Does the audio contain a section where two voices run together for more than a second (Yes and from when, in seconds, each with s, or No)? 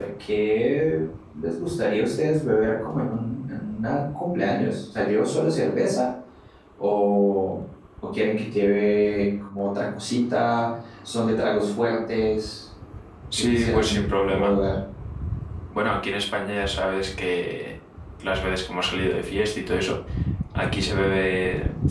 Yes, from 13.3 s